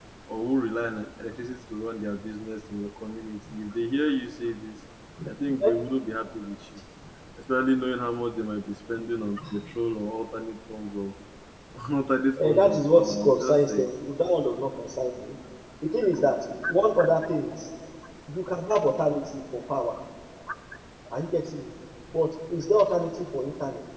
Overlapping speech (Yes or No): Yes